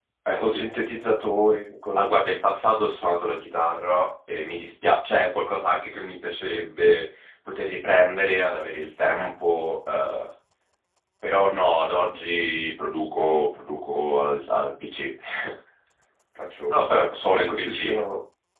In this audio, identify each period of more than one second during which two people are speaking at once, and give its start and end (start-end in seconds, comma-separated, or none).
16.7-18.0